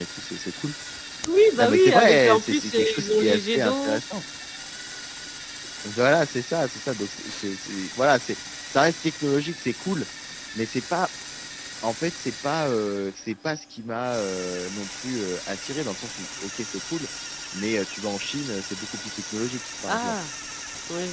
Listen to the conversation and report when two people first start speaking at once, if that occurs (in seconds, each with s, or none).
1.6 s